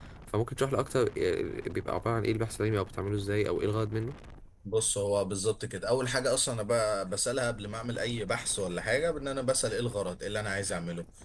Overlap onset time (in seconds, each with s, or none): none